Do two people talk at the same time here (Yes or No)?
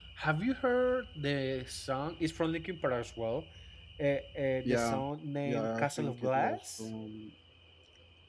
Yes